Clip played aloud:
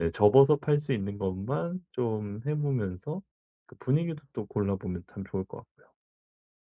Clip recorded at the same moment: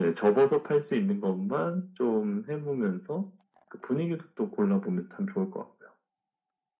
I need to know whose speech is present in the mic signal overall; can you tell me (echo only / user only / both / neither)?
echo only